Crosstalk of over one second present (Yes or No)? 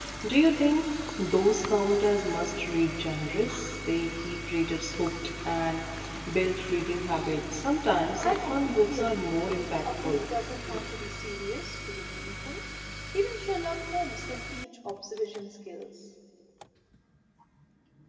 Yes